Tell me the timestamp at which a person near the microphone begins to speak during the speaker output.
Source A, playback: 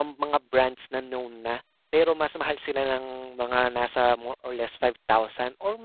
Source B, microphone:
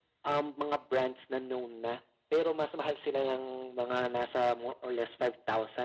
none

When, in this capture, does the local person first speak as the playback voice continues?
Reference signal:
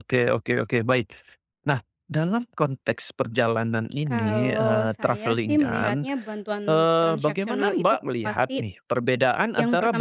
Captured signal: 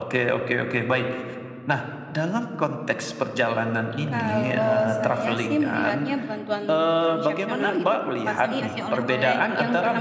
8.4 s

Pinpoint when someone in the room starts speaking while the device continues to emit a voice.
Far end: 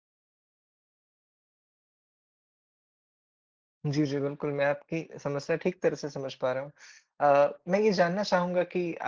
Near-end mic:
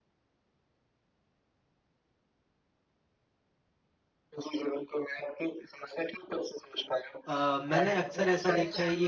7.2 s

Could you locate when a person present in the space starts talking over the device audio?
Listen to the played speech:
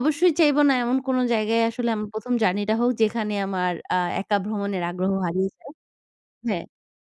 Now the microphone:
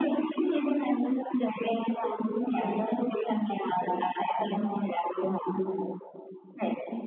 none

